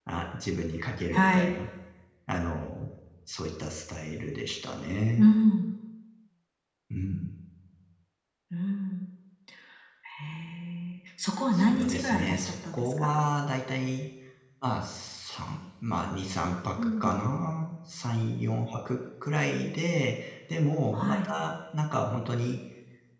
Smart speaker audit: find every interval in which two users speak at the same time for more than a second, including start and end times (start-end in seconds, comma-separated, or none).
11.5-13.1